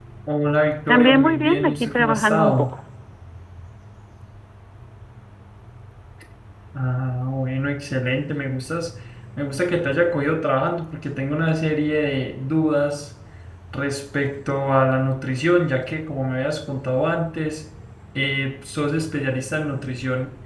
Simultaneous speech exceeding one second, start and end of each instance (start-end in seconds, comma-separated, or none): 0.9-2.7